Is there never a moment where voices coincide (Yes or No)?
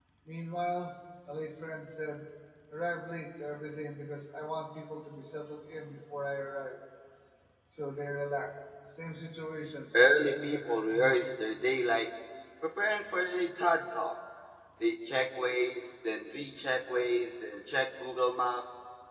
No